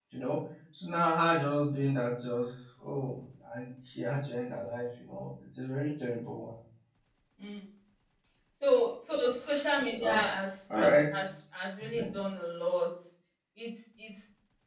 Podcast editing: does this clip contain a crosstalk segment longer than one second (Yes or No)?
No